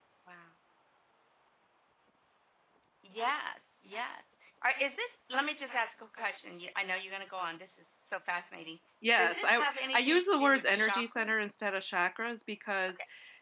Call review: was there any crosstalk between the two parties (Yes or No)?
Yes